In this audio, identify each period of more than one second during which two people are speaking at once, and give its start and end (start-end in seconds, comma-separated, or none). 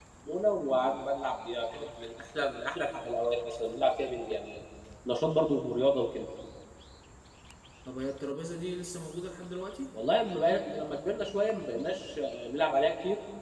none